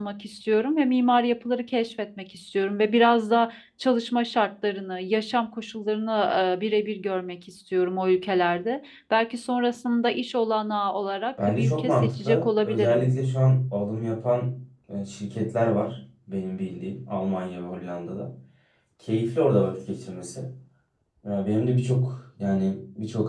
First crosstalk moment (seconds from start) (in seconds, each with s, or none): 11.4 s